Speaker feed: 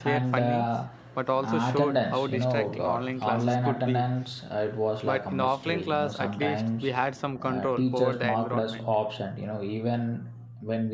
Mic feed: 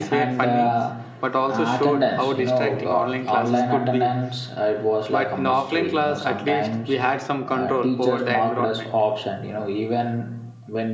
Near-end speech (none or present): none